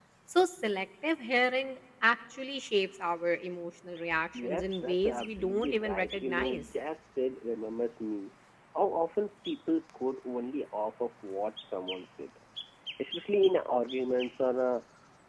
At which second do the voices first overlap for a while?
4.3 s

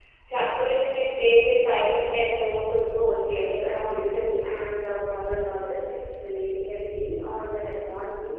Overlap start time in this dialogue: 3.2 s

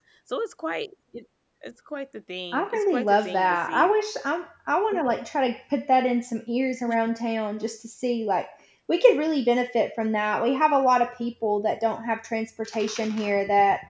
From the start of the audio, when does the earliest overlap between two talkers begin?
2.5 s

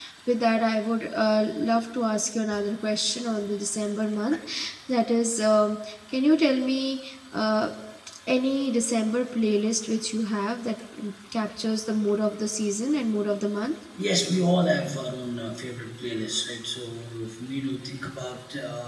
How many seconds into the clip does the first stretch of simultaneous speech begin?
none

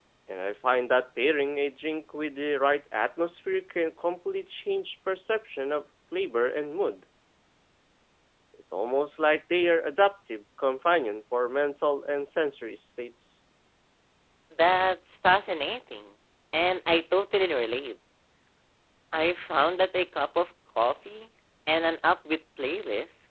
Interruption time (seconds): none

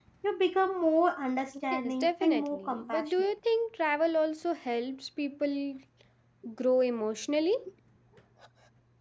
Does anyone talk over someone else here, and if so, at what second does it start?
1.7 s

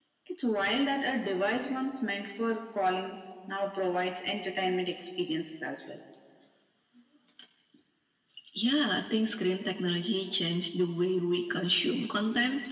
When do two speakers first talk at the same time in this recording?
none

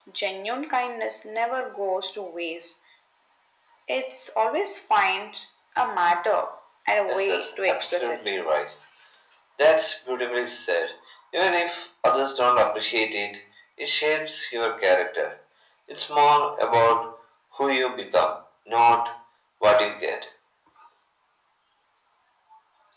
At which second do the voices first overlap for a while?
7.1 s

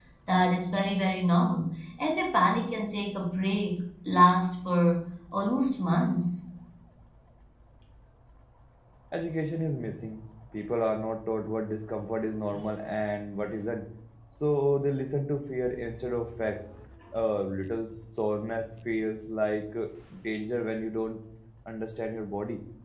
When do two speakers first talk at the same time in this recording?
none

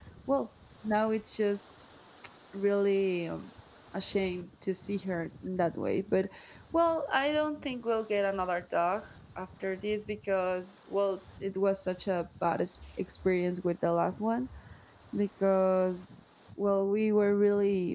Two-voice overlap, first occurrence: none

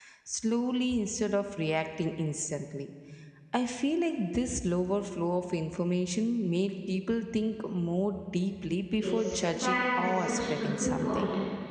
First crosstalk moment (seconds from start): 9.0 s

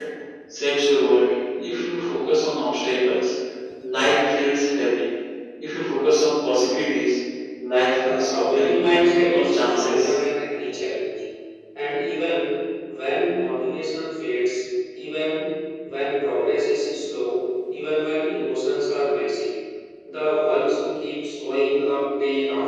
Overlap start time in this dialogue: 7.9 s

